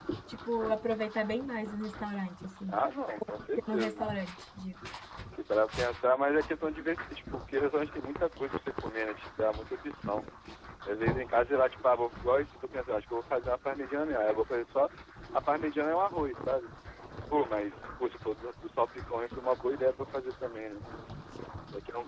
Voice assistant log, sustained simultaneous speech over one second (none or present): none